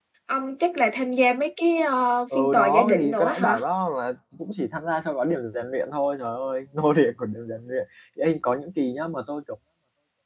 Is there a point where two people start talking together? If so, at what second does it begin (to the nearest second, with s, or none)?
2 s